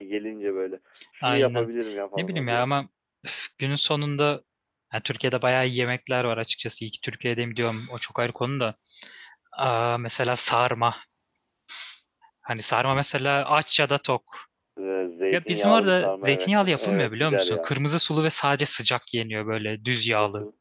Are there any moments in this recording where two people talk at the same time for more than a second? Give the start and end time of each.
15.3-17.7

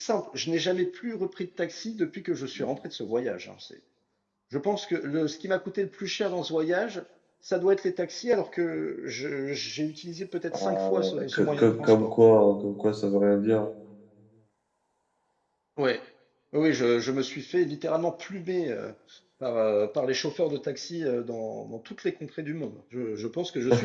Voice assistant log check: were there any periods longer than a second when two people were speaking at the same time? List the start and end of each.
10.5-12.1

